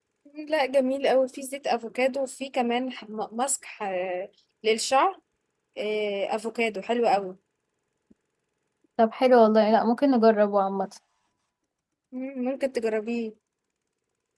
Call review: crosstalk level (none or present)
none